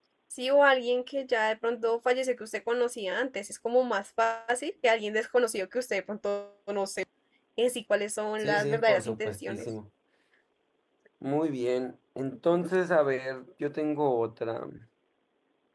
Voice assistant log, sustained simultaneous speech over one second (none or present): present